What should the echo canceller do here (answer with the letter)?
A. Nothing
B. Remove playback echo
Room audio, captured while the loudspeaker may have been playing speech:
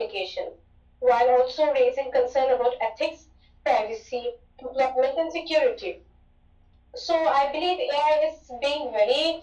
B